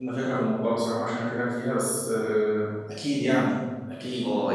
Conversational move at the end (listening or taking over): taking over